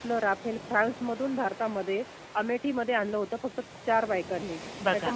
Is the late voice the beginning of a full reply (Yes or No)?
No